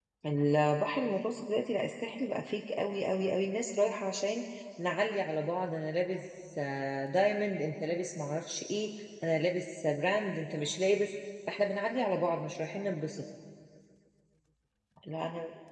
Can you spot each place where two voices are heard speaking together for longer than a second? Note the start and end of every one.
none

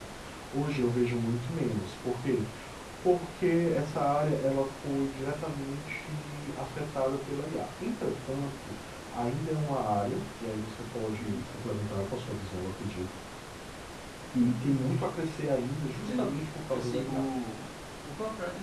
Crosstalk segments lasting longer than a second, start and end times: 16.1-17.3

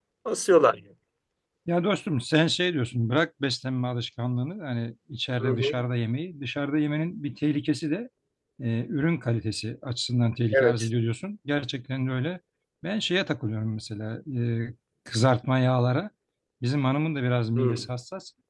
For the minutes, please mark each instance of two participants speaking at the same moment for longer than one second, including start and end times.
none

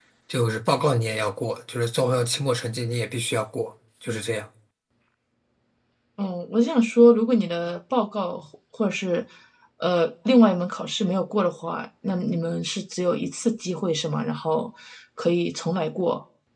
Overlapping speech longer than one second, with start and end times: none

